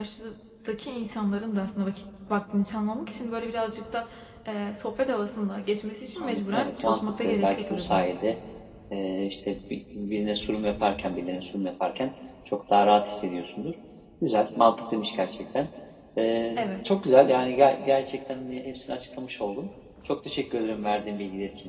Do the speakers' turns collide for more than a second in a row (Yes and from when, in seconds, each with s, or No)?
Yes, from 6.2 s